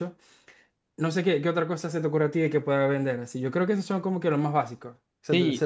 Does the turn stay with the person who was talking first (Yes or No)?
No